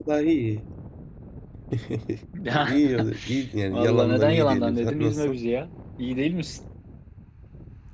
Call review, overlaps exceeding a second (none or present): present